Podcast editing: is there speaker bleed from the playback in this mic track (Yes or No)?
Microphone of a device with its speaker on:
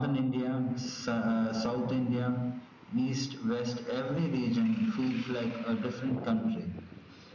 Yes